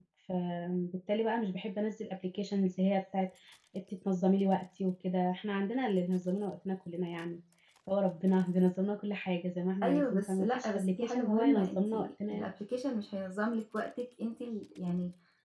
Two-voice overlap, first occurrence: 10 s

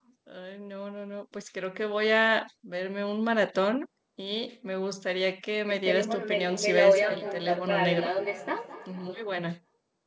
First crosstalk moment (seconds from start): 6 s

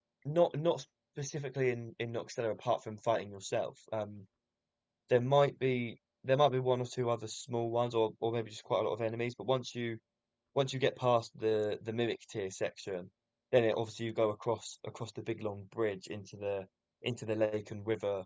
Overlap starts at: none

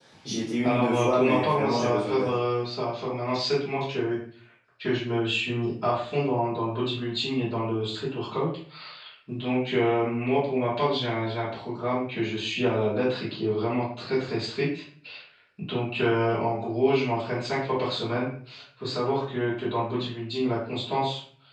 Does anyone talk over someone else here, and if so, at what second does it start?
1 s

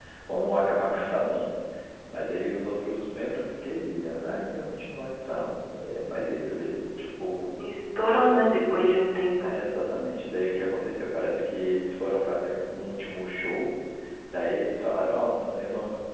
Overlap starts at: none

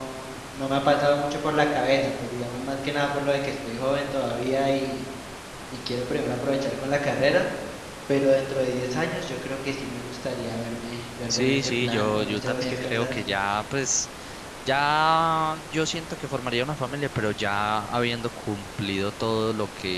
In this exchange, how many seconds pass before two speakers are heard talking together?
11 s

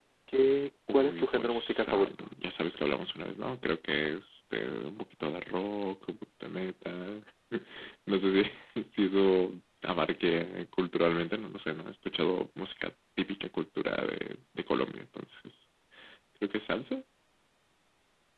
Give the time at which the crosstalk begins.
1 s

